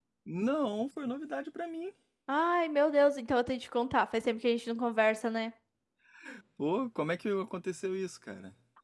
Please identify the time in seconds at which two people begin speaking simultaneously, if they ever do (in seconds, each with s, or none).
none